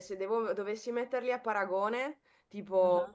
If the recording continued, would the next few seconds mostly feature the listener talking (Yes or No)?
No